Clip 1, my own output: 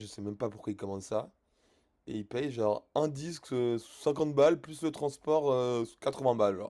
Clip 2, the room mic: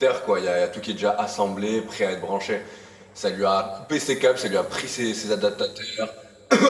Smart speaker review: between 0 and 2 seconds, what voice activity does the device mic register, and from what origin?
user only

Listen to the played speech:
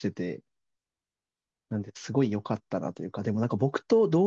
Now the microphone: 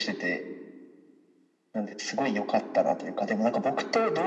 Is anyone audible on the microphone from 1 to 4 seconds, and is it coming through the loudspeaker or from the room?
echo only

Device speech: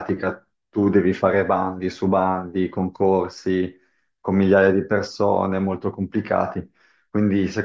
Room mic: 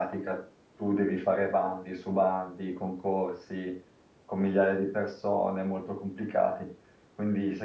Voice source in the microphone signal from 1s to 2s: echo only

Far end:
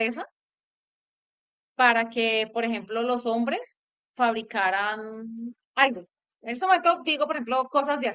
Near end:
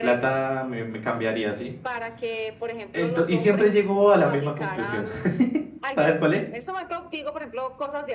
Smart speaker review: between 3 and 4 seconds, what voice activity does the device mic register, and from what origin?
both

